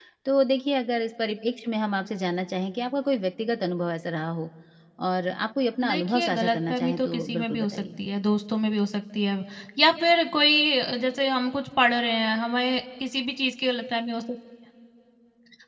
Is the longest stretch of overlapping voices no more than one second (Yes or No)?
No